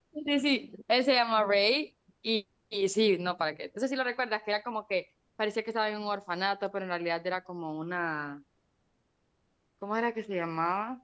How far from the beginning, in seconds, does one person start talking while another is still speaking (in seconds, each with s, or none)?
none